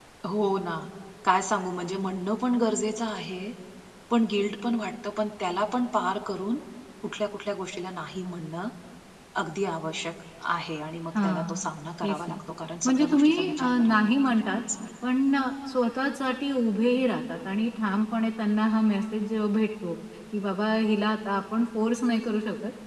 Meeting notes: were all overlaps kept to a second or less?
No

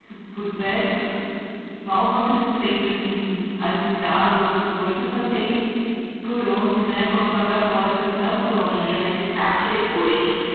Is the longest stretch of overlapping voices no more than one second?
Yes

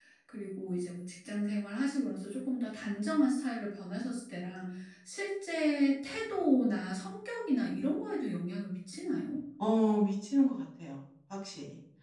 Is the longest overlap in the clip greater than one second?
No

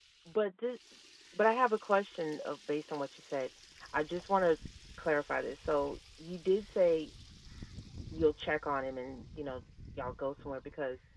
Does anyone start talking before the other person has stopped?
No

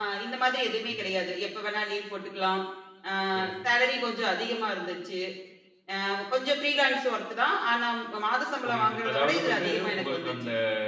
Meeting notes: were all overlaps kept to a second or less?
No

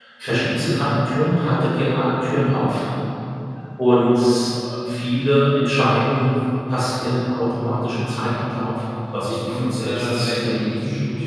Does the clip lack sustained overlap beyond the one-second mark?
No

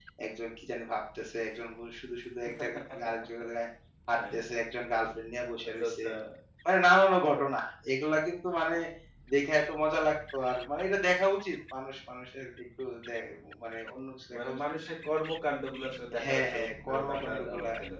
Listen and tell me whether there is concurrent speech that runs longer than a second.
Yes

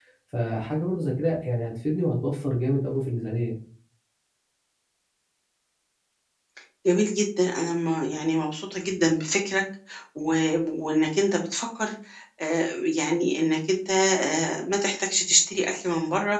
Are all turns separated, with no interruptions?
Yes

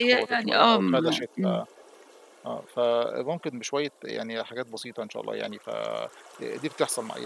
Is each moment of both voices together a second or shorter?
No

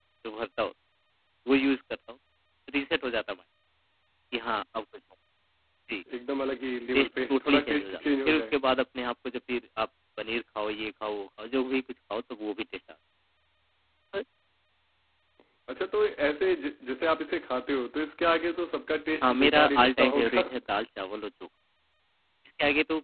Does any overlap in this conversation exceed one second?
Yes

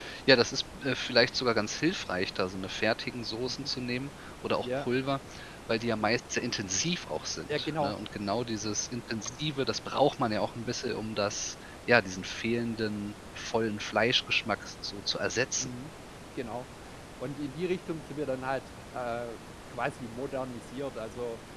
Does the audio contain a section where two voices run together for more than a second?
No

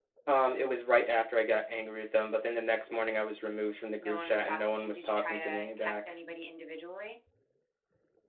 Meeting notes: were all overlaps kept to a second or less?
No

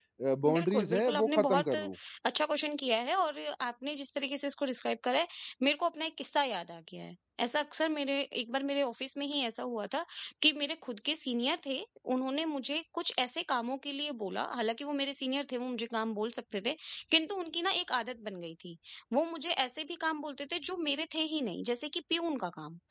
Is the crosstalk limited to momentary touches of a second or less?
No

